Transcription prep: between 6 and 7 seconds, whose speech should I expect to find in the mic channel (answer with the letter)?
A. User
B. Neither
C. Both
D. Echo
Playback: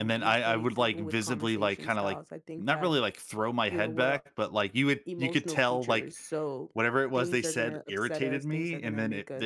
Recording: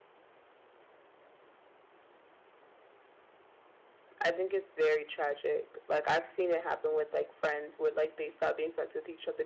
A